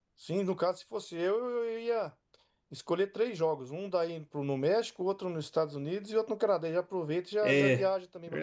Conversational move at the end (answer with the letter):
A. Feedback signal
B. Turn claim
B